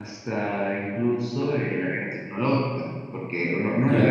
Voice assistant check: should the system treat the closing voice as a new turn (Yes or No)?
No